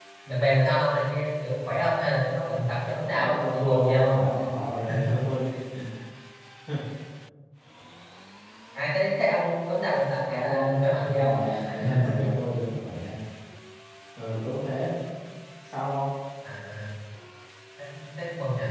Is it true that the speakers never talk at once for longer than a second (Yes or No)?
No